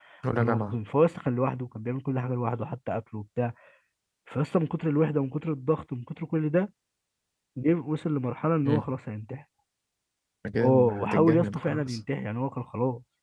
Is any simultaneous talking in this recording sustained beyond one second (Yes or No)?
Yes